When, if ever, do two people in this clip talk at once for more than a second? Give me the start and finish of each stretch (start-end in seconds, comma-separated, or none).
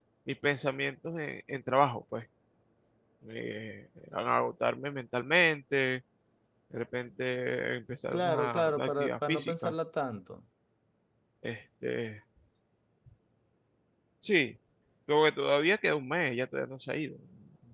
8.1-9.7